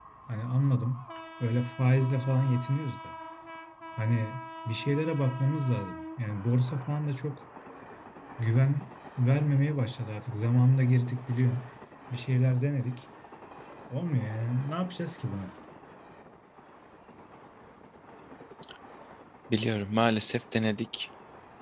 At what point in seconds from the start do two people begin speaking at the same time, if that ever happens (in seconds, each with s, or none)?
none